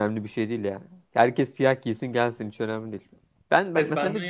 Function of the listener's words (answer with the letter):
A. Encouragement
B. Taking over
B